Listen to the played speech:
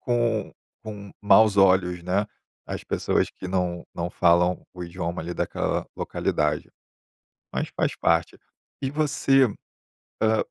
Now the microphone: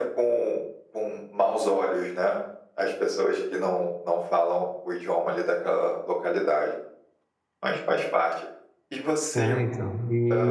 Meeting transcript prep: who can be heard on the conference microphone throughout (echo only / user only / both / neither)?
both